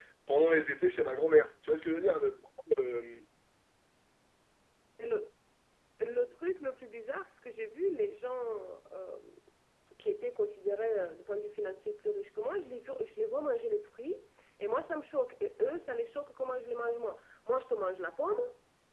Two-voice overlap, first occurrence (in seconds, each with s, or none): none